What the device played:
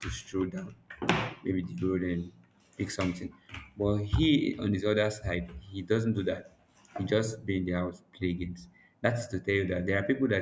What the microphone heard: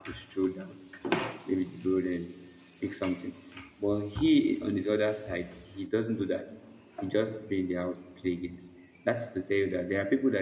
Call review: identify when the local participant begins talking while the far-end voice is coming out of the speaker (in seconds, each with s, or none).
none